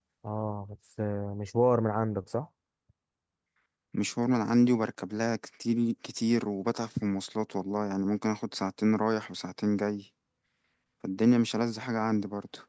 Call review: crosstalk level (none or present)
none